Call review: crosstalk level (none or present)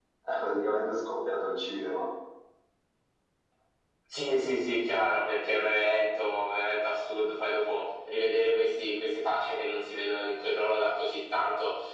none